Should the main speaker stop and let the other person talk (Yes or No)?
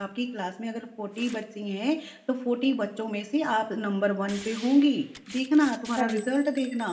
No